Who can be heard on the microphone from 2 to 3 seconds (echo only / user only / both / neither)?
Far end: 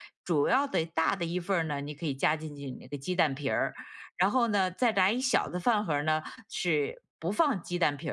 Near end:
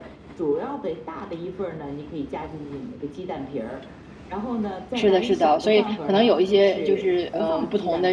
echo only